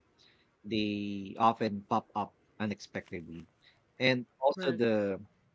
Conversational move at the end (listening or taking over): listening